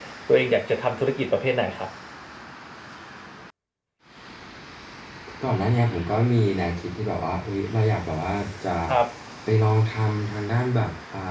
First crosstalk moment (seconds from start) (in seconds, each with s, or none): none